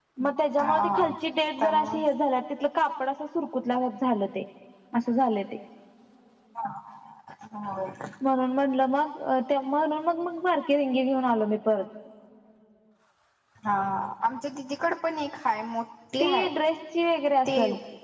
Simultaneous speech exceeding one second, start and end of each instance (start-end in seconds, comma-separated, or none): none